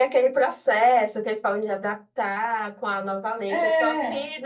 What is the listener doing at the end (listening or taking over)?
listening